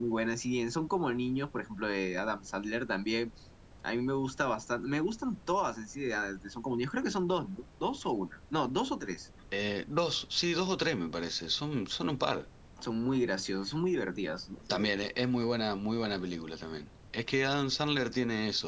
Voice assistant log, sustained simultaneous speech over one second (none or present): none